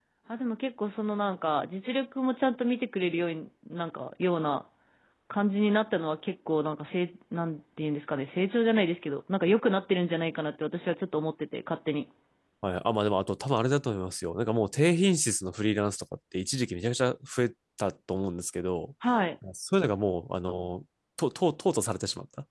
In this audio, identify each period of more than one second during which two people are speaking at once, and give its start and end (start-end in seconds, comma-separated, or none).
none